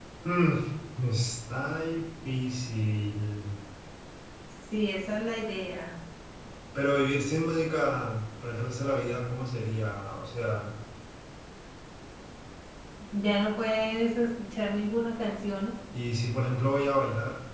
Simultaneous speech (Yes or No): No